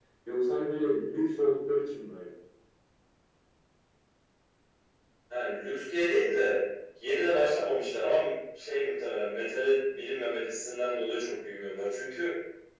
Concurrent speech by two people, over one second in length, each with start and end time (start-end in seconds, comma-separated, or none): none